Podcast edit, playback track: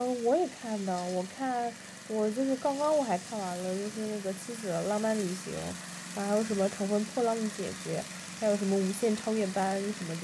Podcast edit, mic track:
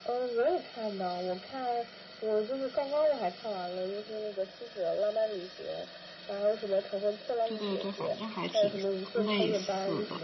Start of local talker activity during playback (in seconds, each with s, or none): 7.4 s